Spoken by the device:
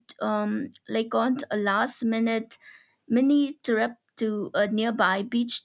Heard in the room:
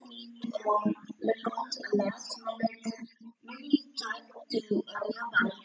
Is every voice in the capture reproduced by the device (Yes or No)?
Yes